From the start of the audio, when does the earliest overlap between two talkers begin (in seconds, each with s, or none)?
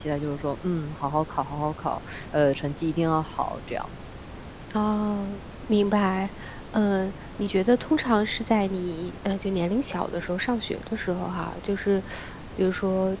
none